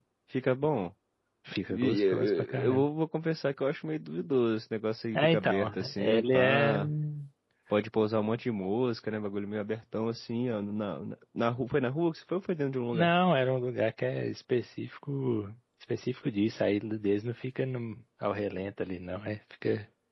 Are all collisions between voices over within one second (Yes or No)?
No